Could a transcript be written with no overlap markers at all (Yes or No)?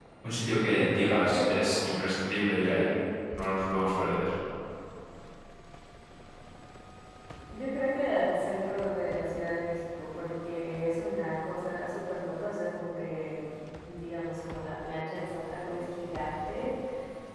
No